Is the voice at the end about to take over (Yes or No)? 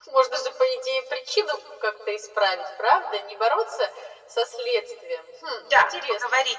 Yes